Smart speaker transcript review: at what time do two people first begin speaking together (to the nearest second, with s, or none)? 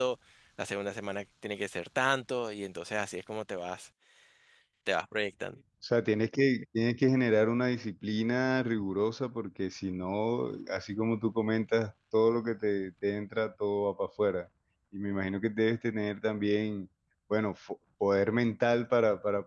none